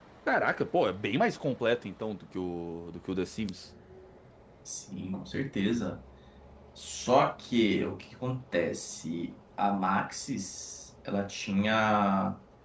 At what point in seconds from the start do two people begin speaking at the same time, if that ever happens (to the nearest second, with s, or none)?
none